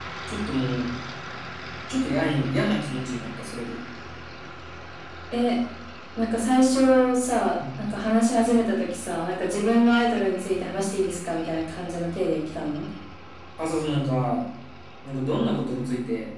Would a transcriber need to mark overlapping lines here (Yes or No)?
No